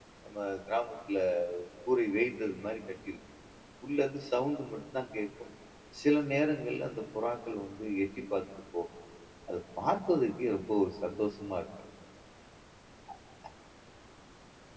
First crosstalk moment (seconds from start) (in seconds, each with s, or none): none